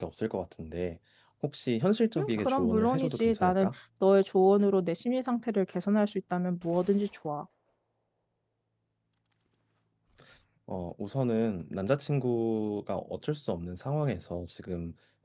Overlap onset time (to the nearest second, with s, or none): 2 s